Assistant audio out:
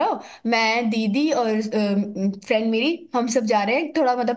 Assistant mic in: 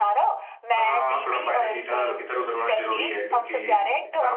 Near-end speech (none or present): present